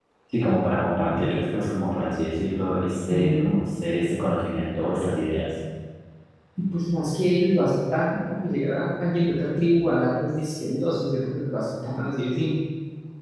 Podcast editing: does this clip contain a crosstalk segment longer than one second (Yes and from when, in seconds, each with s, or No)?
No